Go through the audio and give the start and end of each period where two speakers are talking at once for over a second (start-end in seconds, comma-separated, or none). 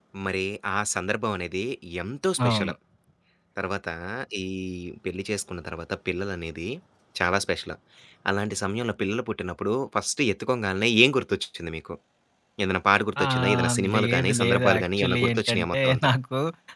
13.2-16.1